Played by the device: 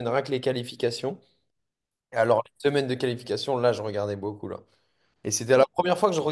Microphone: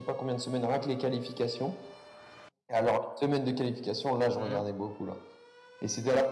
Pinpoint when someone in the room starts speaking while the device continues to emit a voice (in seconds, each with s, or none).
4.3 s